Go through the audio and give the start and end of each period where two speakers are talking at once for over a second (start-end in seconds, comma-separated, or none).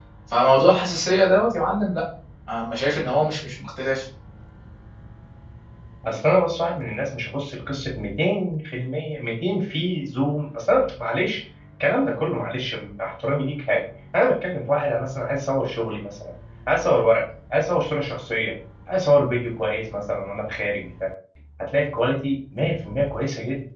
none